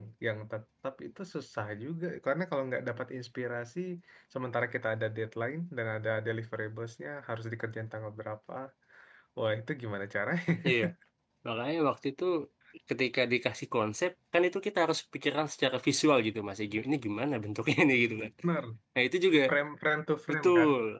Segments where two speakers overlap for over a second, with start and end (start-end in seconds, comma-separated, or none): none